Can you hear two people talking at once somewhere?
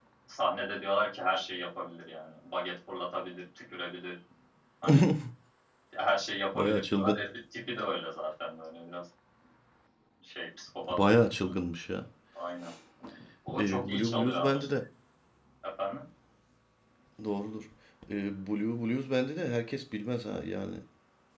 Yes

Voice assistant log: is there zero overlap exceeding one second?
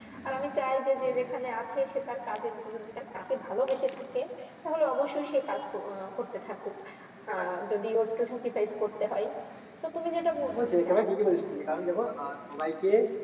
Yes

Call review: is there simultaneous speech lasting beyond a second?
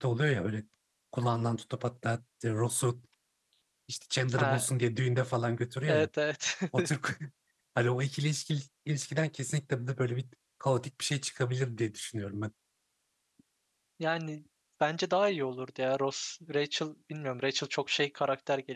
No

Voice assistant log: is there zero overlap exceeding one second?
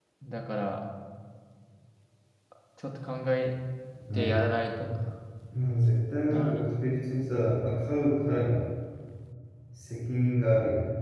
Yes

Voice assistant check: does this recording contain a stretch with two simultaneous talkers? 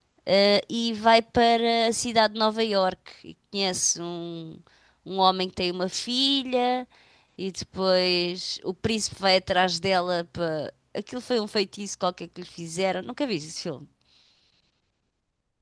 No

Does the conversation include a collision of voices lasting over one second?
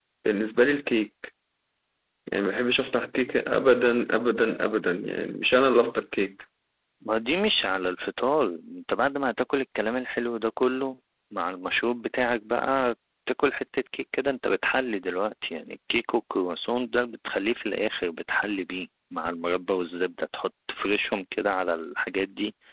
No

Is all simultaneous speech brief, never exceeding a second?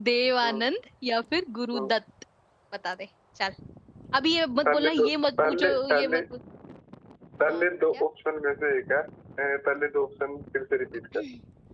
No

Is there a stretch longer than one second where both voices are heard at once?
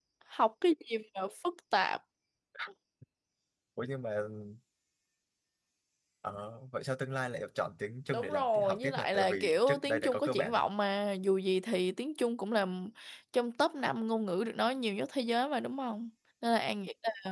Yes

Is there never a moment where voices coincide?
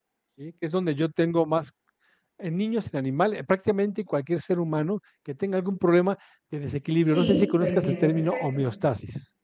No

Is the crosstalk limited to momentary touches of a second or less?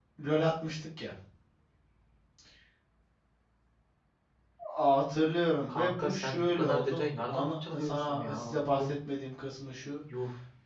No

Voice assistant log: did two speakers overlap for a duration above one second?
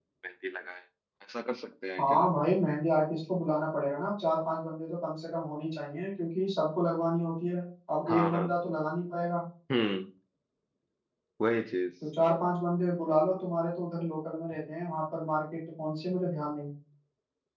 No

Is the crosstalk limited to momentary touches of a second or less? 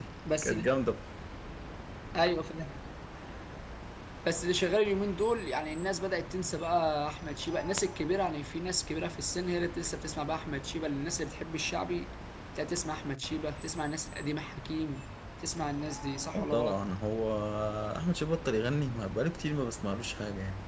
Yes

